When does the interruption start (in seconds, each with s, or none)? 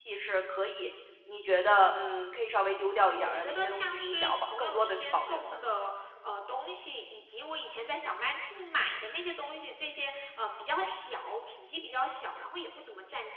3.0 s